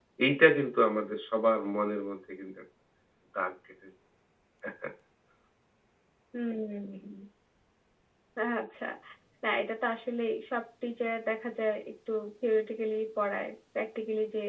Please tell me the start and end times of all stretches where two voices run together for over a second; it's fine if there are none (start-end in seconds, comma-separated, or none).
none